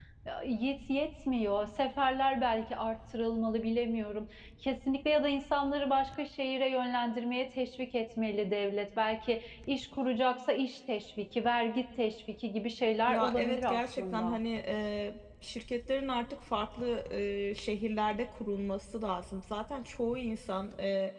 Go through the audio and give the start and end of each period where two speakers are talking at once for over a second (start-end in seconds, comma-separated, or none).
13.1-14.4